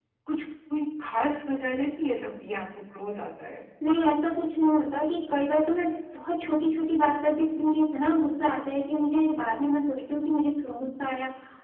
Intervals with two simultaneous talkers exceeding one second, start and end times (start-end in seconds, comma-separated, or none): none